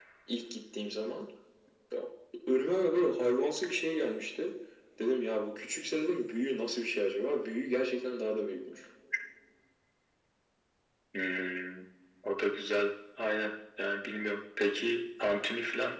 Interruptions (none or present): none